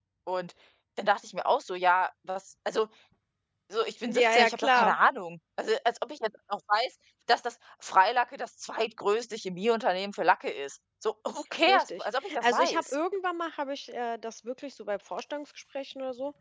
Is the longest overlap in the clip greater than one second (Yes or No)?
Yes